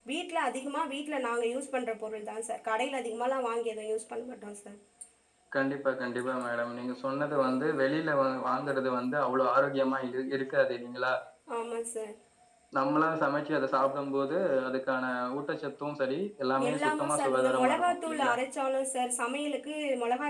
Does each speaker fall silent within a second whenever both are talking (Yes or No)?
No